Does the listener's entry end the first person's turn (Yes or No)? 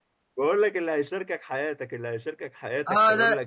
Yes